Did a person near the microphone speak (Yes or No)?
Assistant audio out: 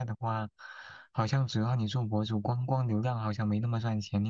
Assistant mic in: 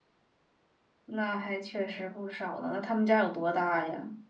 Yes